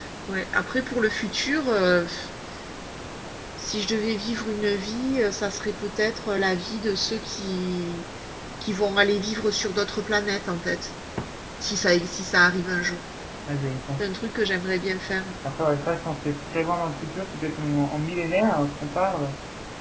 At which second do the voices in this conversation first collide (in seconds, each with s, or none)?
none